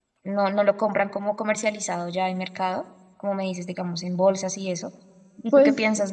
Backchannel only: Yes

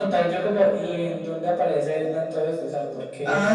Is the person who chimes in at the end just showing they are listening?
No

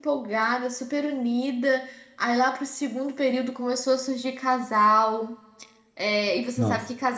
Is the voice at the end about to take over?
No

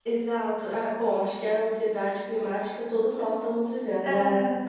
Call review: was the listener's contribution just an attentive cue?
Yes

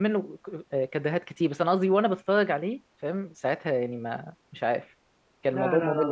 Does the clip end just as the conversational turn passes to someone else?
Yes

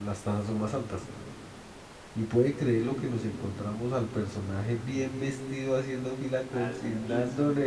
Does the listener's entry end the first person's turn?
No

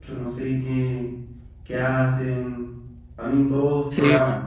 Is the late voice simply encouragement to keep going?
No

